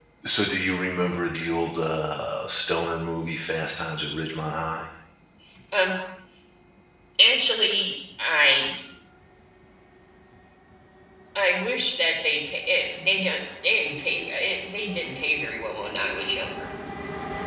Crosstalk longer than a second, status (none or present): none